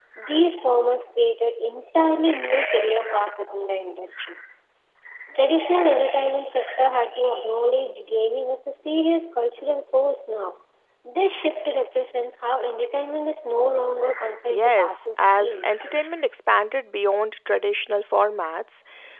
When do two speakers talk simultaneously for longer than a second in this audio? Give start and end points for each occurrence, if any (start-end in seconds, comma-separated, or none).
14.5-16.1